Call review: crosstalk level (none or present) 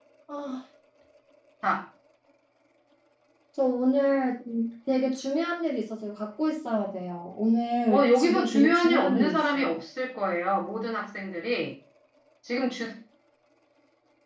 present